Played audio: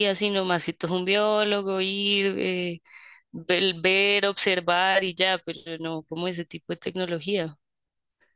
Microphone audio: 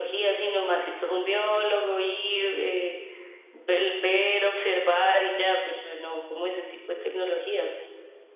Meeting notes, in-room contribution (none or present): none